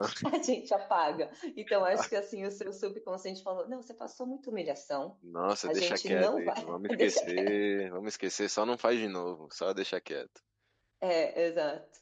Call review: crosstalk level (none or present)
present